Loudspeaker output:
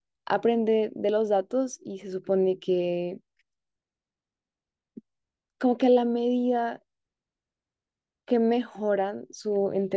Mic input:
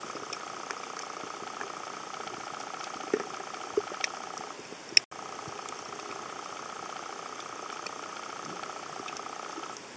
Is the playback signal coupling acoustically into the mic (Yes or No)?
No